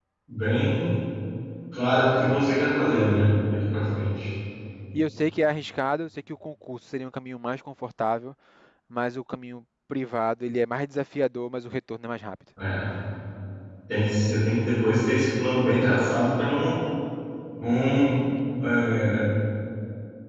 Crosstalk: none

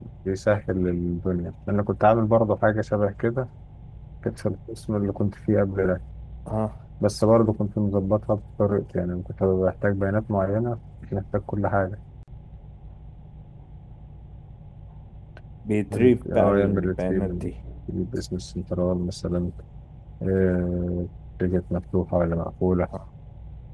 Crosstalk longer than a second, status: present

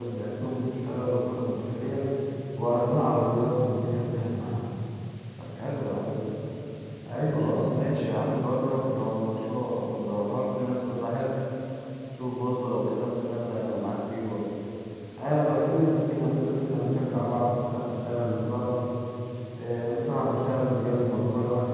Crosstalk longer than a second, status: none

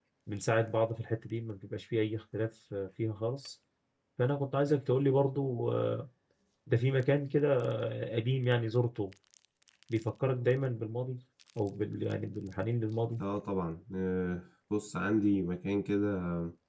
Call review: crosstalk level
none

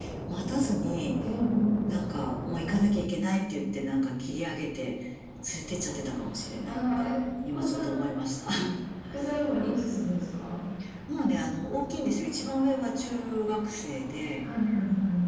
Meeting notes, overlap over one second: none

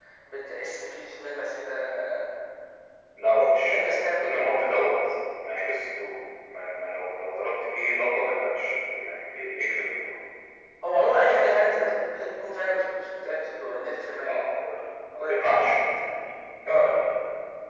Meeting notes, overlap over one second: present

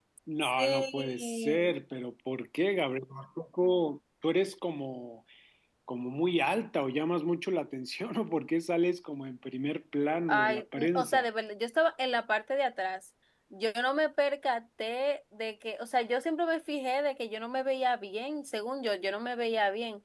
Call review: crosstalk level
present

